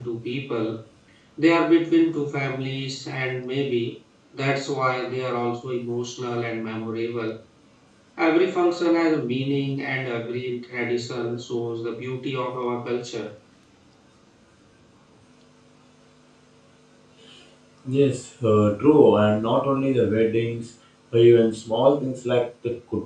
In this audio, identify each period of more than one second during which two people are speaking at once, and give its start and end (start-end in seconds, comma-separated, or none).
none